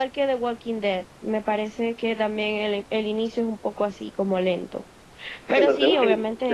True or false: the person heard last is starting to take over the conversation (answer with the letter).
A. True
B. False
A